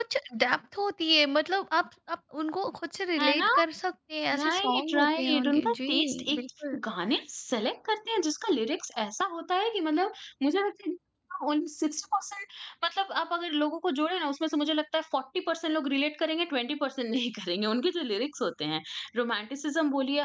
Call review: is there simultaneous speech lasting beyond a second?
Yes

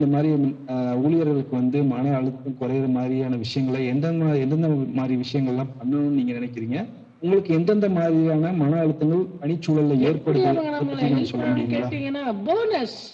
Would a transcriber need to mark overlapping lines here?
Yes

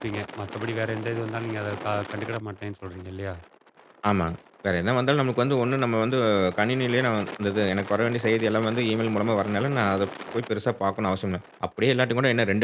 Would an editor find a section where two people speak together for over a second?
No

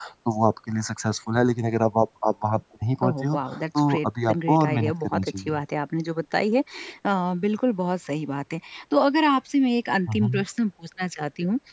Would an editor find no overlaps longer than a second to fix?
No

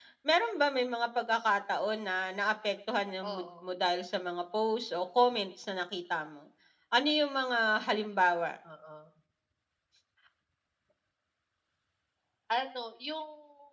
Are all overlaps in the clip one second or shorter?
Yes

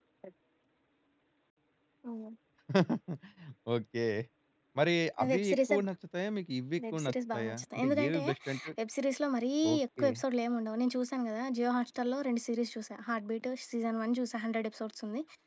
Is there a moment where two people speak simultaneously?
Yes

